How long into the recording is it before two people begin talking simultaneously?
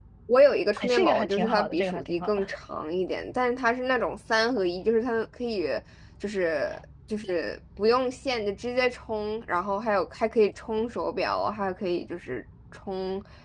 1 s

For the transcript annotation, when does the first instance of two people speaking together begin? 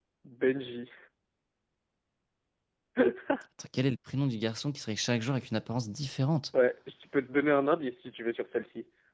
none

